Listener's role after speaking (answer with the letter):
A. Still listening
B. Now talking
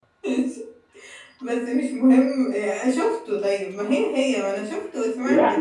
B